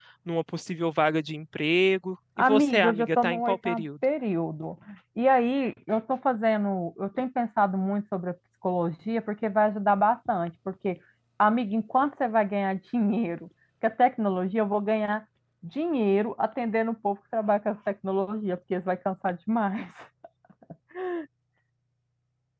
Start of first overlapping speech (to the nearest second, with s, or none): 2 s